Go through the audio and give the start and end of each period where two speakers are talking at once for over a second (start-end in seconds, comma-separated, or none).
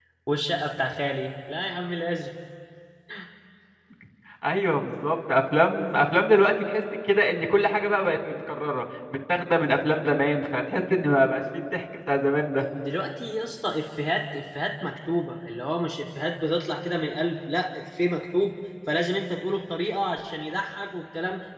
none